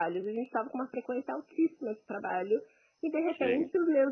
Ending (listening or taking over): listening